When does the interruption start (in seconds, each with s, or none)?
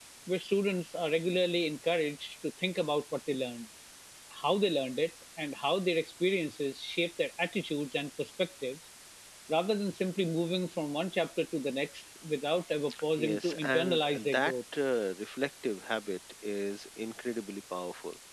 13.2 s